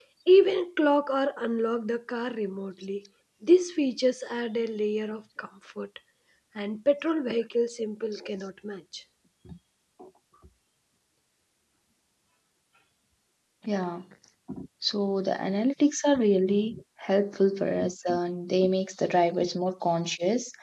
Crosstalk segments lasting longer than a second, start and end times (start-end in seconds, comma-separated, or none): none